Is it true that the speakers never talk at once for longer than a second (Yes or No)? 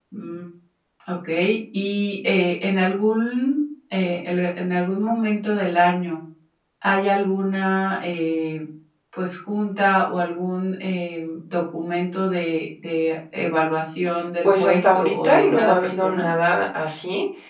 No